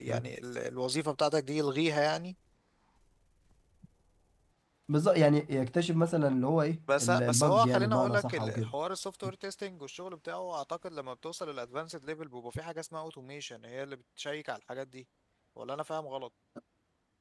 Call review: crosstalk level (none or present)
present